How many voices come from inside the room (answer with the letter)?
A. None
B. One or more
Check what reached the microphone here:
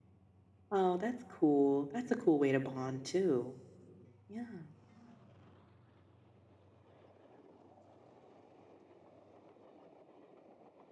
B